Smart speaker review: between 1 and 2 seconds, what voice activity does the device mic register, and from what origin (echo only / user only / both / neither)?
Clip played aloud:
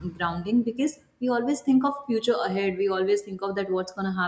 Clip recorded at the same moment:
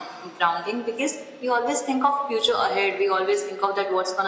echo only